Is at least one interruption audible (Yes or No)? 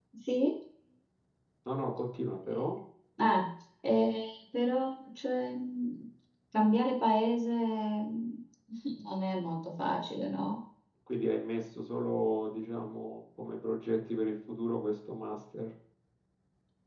No